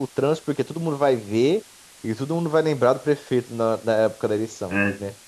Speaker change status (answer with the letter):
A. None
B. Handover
B